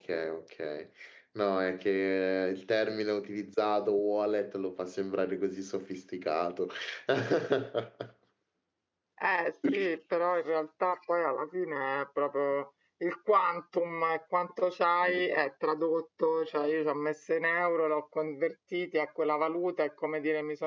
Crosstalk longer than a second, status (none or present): none